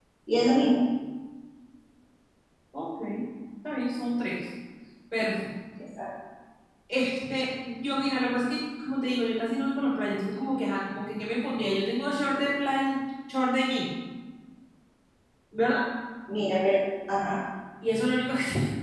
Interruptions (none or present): none